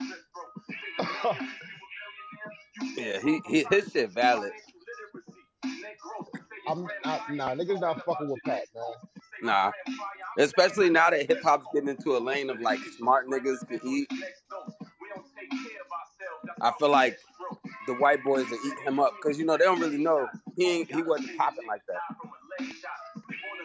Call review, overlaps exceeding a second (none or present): present